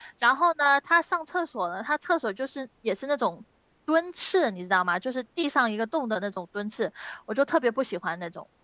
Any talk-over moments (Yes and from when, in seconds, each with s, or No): No